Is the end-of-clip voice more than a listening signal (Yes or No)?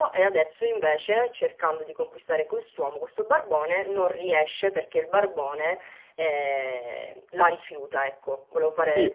Yes